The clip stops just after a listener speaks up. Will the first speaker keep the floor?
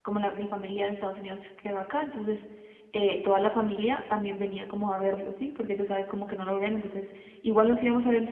Yes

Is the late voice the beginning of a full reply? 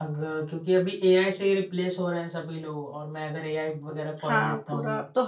Yes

